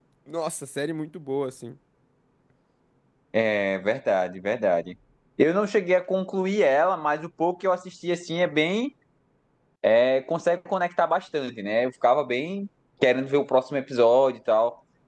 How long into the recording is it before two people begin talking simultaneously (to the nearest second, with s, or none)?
none